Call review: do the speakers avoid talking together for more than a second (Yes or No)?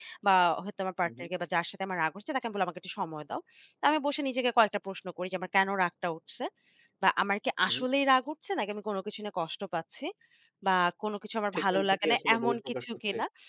No